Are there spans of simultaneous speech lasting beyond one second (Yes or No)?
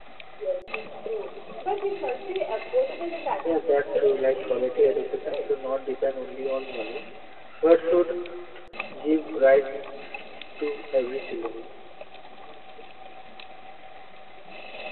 Yes